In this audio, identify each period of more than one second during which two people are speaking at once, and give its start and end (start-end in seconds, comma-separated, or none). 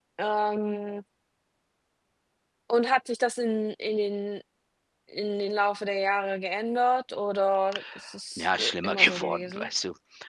8.4-9.7